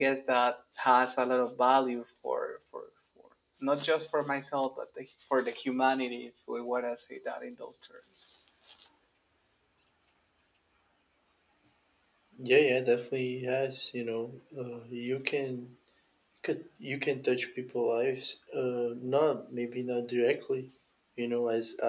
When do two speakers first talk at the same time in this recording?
none

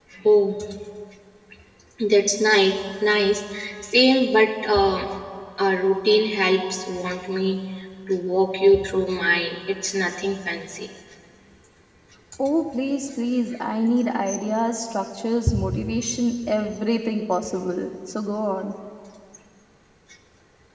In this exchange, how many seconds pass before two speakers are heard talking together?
none

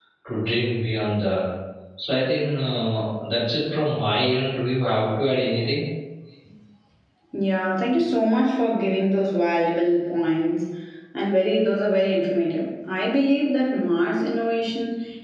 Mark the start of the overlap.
none

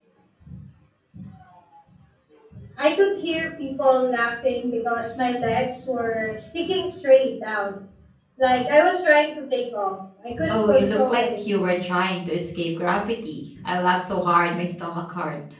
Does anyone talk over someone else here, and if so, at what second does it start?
10.4 s

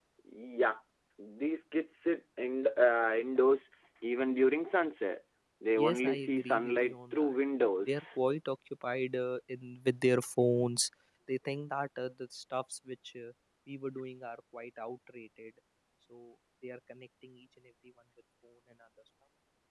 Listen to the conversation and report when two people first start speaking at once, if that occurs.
5.8 s

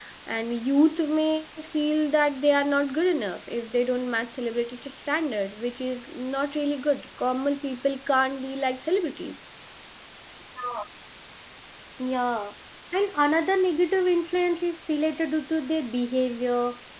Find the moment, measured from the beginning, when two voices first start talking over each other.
none

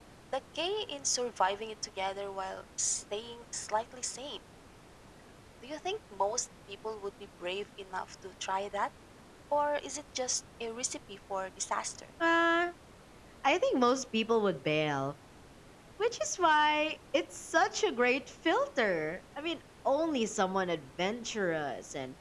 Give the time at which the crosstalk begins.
none

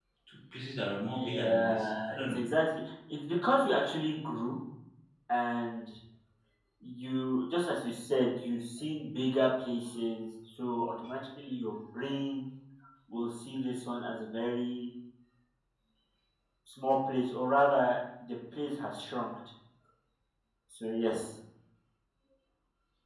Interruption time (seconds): 1.1 s

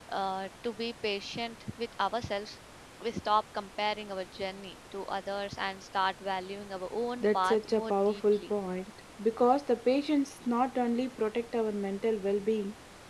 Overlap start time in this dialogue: 7.2 s

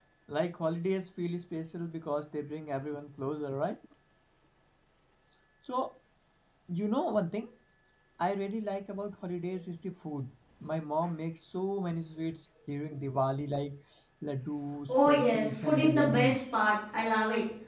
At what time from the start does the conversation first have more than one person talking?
14.9 s

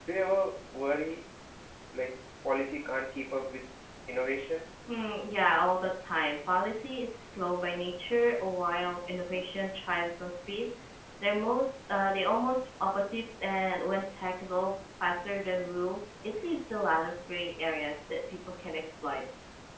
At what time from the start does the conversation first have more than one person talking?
none

